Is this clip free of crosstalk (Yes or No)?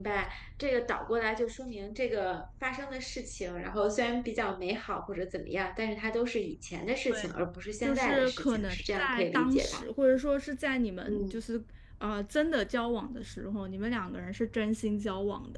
No